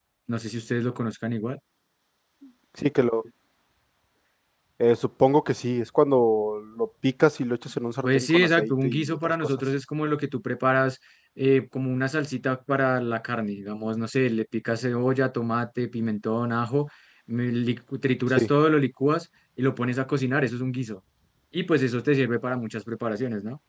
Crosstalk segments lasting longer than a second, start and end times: 8.0-9.5

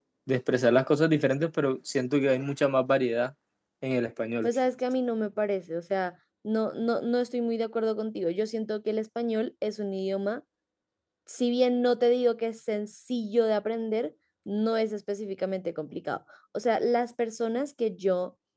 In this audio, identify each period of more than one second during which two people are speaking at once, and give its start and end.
none

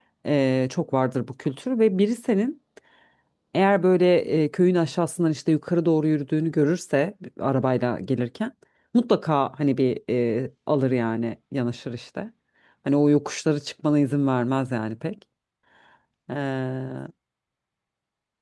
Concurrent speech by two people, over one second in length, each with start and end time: none

